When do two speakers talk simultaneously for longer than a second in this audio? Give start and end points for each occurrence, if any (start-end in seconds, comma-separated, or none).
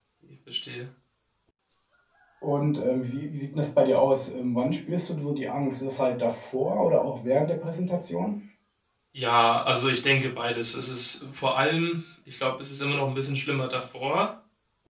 none